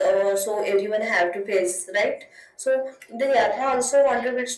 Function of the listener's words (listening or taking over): listening